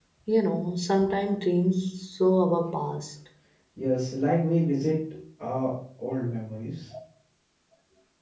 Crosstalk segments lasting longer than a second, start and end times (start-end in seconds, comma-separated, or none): none